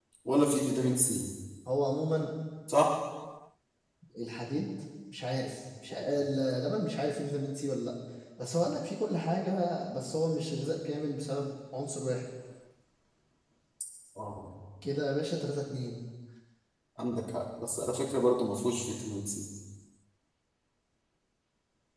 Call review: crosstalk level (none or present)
none